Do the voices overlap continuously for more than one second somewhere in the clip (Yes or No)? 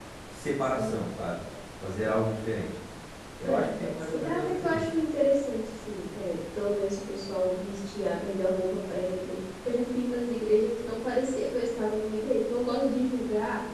Yes